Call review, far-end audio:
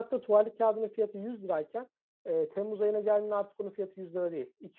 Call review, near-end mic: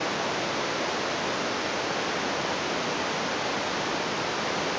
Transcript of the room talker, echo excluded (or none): none